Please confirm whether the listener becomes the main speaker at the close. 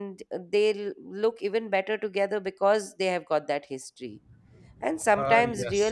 No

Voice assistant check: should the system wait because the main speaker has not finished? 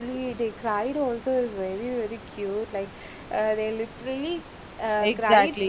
No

